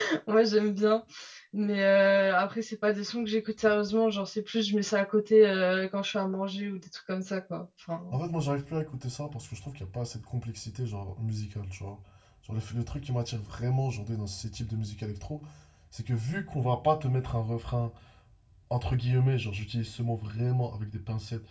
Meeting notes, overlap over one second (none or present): none